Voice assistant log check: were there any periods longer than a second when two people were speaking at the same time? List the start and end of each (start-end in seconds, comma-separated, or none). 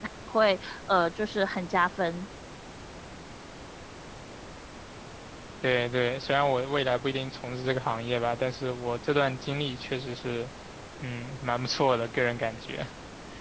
none